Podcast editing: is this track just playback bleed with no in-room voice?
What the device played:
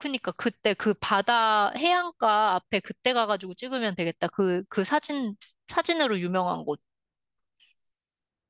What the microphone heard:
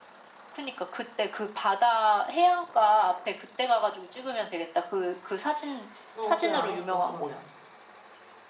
No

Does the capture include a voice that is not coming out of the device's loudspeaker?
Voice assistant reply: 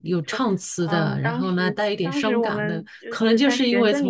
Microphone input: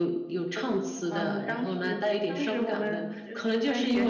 No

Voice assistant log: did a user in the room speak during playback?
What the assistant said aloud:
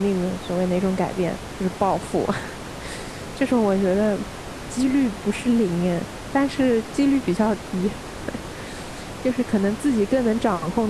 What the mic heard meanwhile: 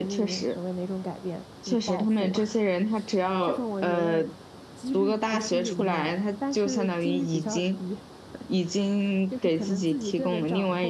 Yes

